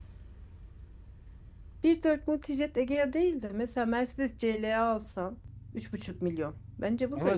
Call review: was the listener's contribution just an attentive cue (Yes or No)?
No